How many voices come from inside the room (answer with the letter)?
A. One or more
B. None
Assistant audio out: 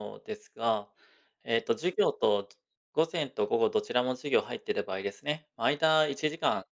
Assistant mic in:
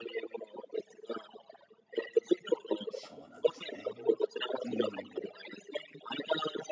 A